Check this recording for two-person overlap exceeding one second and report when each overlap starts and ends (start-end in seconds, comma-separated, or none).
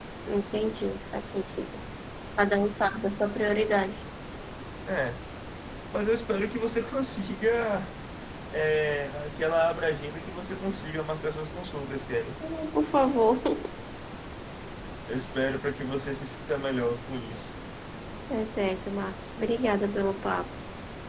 none